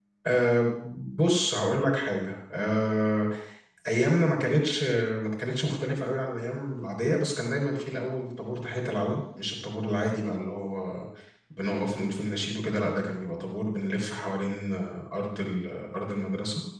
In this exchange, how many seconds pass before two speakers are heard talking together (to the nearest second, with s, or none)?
none